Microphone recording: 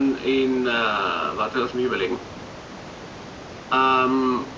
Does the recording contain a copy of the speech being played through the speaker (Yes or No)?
Yes